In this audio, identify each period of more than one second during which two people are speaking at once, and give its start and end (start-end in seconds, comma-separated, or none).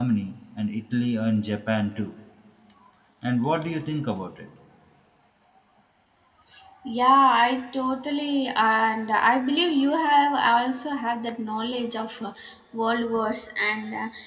none